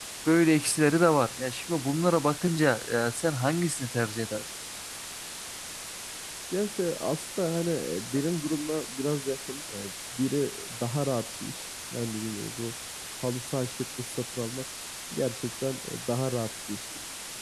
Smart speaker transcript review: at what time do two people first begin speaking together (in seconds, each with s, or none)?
none